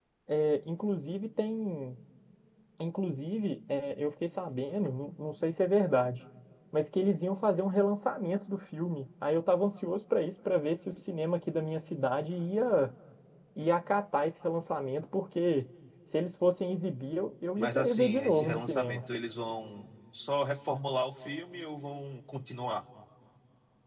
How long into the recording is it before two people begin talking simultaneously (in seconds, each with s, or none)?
17.6 s